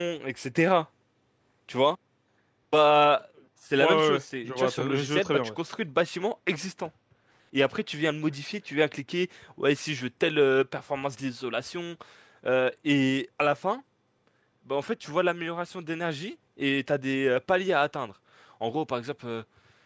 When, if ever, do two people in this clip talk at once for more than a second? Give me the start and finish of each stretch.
3.8-5.5

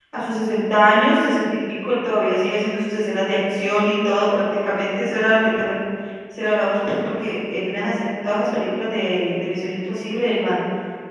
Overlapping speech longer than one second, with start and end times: none

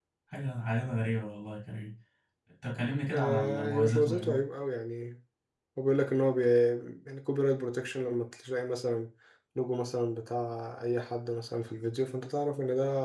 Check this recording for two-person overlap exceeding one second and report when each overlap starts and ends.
3.1-4.4

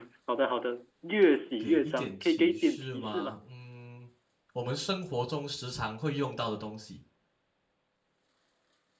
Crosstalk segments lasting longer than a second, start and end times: 1.6-3.4

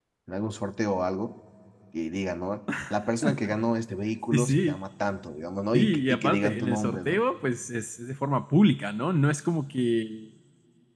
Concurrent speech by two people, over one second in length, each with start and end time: 5.7-7.2

